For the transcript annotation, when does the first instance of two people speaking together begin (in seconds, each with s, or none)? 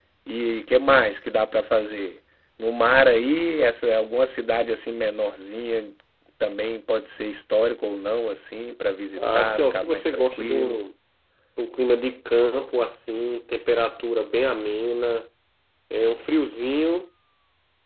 9.2 s